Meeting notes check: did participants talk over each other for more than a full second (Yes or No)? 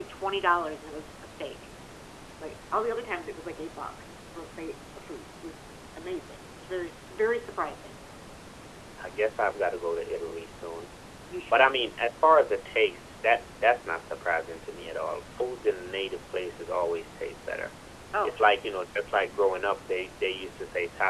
No